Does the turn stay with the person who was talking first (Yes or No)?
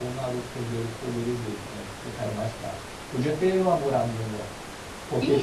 No